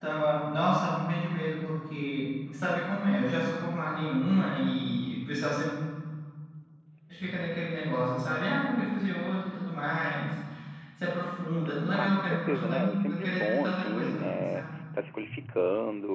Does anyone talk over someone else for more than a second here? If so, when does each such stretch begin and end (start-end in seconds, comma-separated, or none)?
11.9-14.6